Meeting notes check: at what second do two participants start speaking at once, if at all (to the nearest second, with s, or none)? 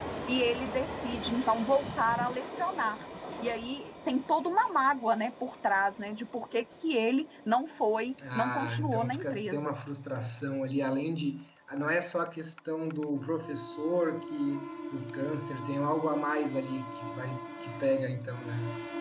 8 s